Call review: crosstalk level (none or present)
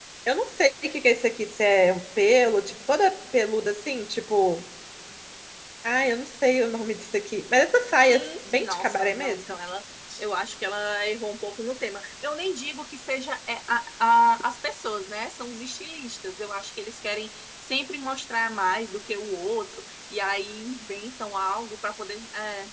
present